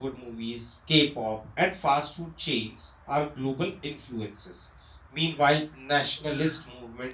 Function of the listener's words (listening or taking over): listening